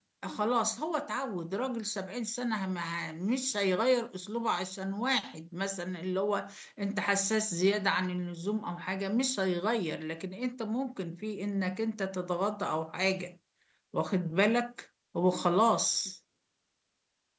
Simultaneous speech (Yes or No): No